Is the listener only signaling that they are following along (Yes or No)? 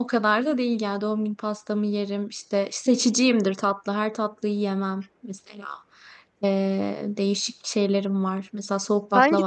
No